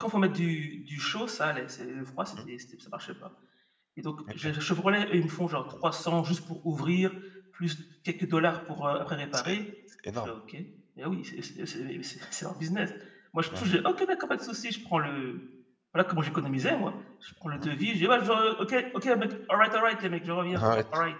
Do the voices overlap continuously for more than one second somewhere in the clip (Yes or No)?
No